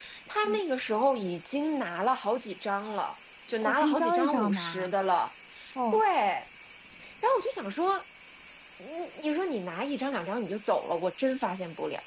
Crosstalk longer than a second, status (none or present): present